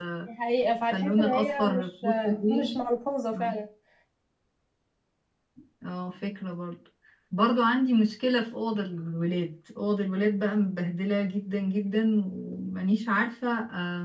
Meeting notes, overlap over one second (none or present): present